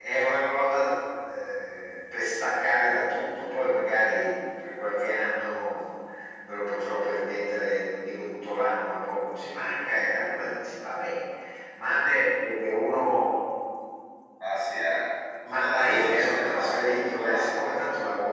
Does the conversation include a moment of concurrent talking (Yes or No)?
Yes